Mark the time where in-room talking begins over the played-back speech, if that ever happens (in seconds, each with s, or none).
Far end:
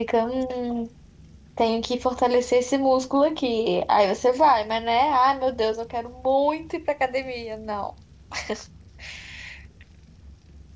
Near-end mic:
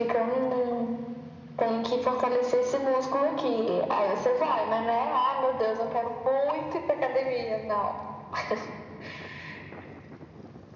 none